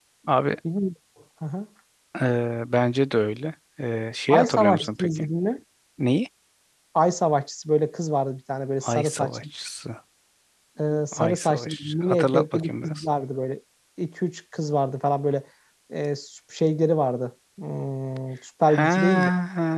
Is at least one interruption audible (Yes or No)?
Yes